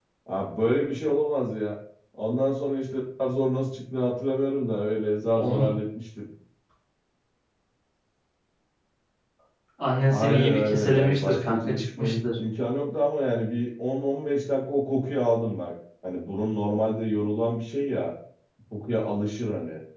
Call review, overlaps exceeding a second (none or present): present